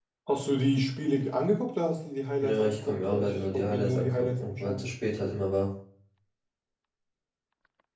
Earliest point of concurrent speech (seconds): 2.4 s

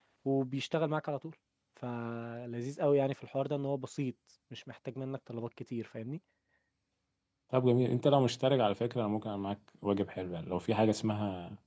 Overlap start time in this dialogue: none

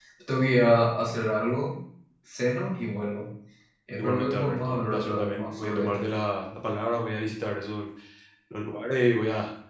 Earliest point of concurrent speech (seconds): 4.0 s

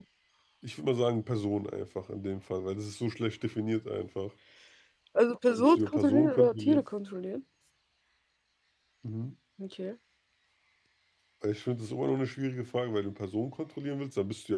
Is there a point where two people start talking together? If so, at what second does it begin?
5.6 s

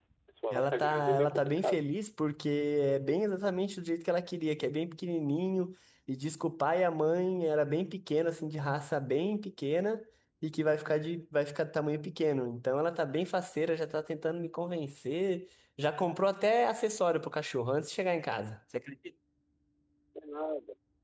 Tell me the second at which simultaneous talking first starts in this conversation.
0.5 s

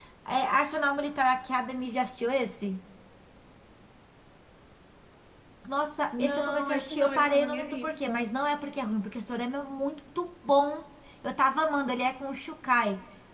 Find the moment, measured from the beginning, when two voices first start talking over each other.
6.1 s

